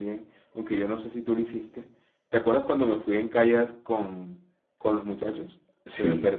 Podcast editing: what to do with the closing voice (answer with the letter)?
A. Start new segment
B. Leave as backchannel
A